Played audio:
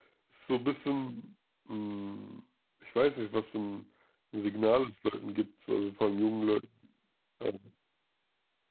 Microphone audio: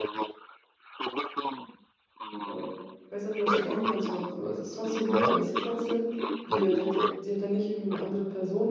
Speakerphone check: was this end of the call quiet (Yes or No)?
No